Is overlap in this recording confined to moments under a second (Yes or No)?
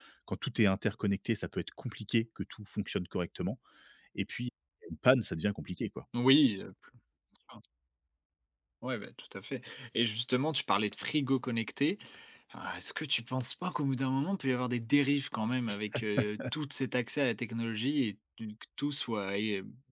Yes